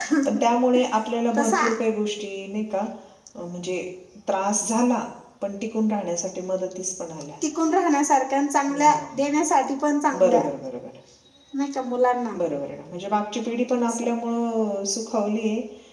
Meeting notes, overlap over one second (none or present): none